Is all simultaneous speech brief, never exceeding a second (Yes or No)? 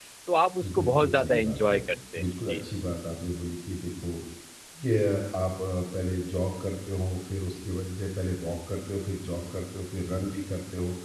No